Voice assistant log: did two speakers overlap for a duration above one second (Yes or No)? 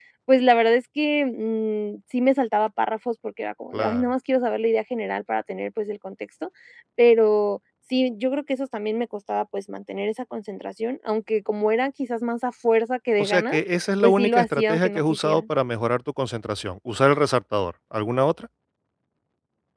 Yes